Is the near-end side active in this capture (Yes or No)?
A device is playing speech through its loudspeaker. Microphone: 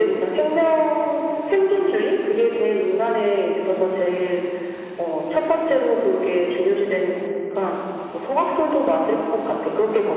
No